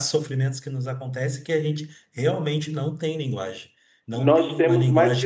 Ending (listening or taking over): taking over